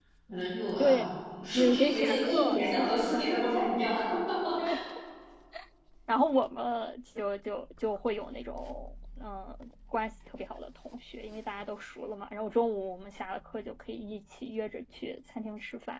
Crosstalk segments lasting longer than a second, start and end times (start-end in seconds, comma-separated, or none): 1.6-3.3